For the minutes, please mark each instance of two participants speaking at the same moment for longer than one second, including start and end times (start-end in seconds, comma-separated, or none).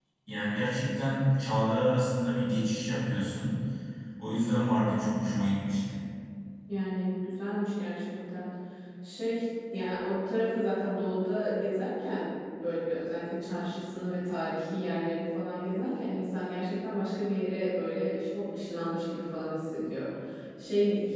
none